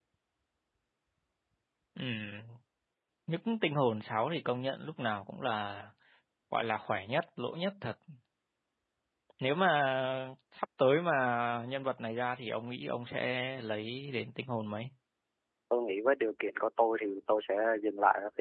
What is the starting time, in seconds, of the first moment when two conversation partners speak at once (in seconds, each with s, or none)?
none